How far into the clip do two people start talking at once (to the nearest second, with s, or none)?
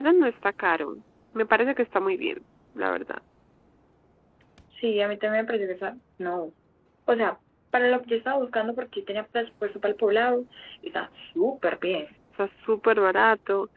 none